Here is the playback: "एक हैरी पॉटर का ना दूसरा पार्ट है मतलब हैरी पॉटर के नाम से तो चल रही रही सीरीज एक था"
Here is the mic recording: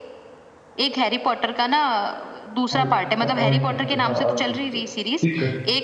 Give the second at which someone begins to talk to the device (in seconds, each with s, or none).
2.7 s